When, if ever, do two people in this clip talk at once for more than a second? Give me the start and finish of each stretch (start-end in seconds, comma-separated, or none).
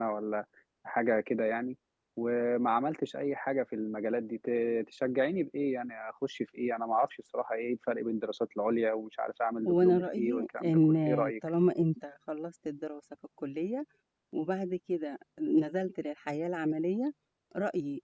9.7-11.3